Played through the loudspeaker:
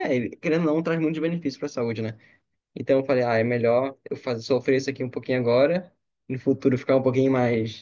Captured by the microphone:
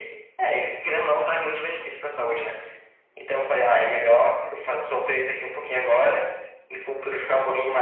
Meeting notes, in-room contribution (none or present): none